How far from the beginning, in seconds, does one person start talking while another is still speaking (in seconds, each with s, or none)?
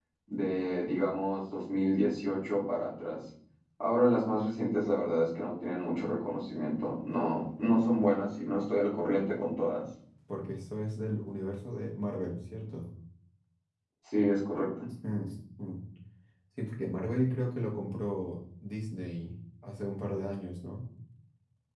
none